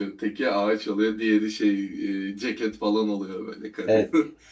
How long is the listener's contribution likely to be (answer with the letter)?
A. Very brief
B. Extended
B